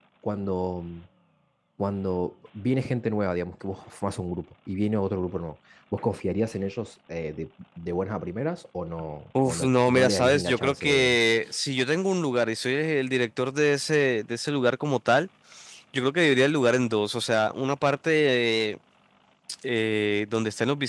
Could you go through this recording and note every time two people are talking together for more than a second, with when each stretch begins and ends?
9.4-11.2

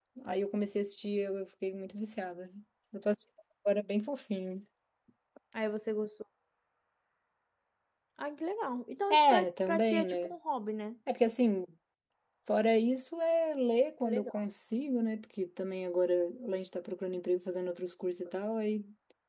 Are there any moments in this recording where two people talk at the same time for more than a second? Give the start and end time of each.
9.1-10.3

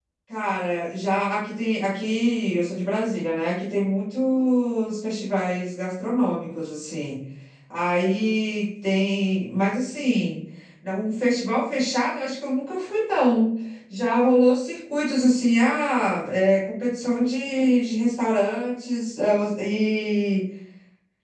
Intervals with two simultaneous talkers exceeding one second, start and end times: none

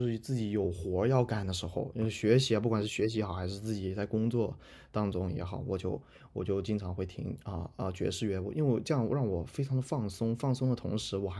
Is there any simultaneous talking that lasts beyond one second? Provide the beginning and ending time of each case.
none

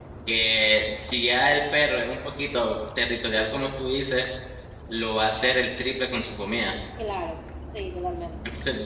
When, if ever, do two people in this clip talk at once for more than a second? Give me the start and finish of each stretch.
none

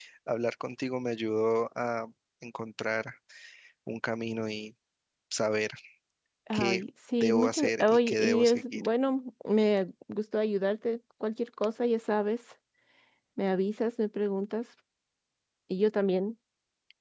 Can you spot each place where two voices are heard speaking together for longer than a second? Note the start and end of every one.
7.2-8.9

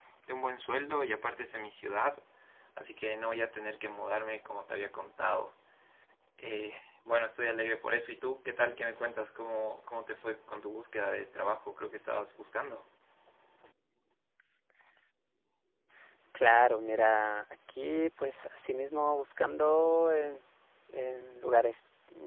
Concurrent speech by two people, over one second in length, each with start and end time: none

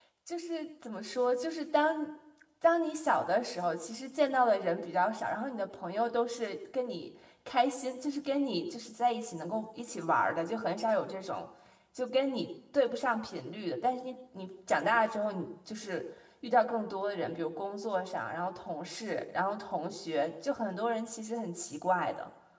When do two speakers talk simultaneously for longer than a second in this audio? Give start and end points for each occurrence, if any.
none

